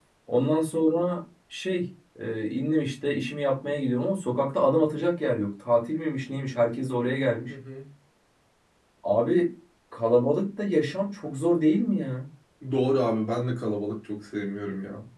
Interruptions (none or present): none